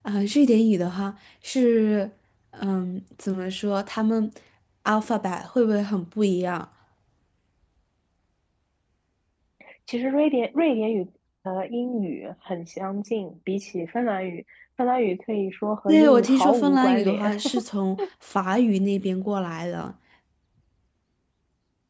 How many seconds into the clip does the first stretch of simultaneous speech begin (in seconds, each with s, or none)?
15.9 s